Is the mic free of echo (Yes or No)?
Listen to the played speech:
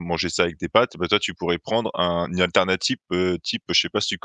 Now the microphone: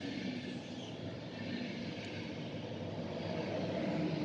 Yes